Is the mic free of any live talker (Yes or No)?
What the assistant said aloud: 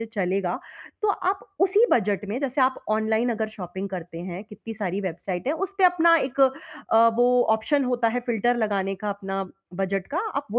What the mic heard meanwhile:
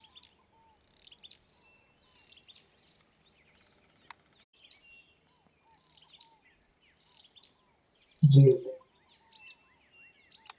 No